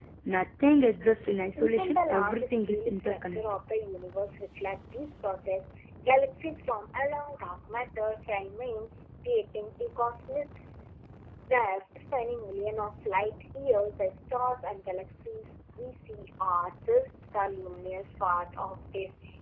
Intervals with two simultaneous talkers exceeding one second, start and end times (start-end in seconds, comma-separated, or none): 1.6-3.4